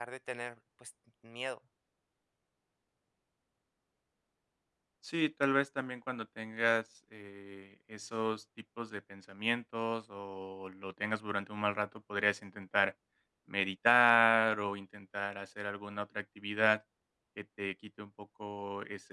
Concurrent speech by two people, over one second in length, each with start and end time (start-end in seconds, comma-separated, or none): none